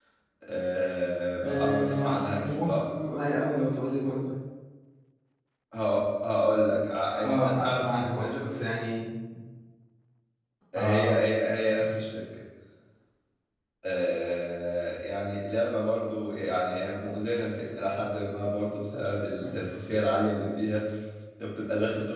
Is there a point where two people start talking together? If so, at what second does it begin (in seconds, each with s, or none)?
1.4 s